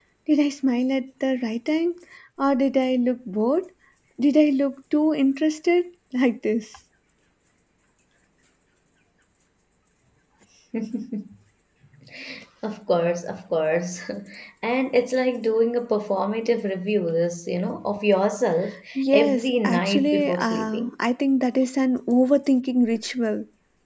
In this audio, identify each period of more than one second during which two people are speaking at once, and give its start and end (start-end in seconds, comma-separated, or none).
19.1-20.9